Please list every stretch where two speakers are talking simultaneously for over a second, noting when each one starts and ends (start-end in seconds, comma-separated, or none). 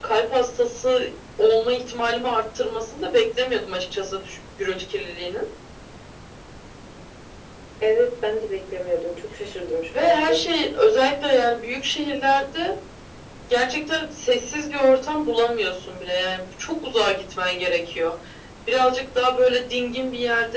none